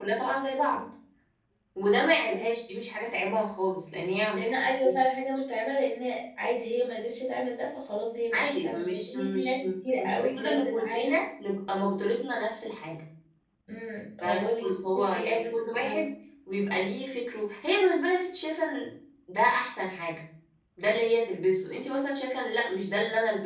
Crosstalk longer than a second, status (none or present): present